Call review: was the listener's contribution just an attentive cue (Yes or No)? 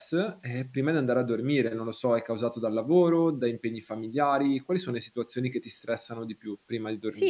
No